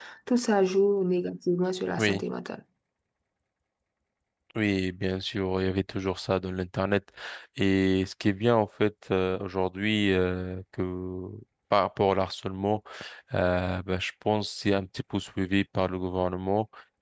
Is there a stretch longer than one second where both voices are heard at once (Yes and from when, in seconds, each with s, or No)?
No